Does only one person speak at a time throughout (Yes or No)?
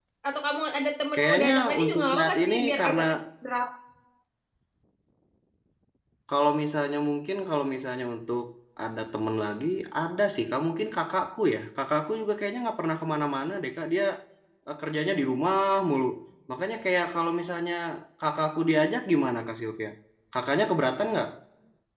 No